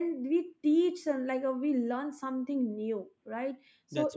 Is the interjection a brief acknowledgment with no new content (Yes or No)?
Yes